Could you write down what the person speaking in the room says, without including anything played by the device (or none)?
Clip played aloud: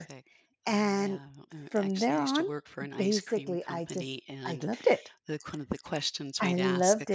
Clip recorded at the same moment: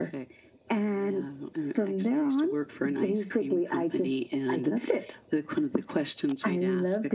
none